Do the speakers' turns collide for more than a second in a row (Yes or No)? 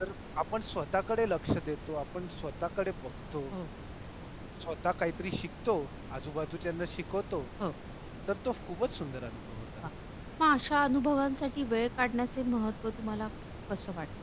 No